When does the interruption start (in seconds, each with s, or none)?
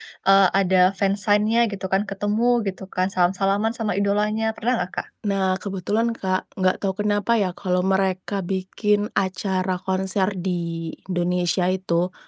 none